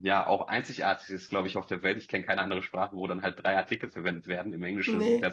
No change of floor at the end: Yes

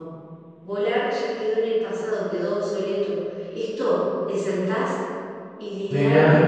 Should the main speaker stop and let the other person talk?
No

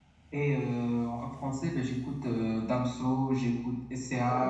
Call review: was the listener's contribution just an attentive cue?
Yes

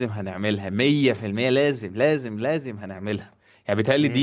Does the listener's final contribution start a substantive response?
No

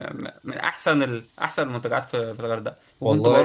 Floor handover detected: No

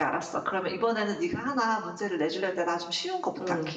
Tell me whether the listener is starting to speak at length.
Yes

